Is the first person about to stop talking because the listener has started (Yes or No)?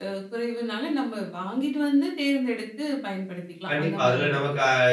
Yes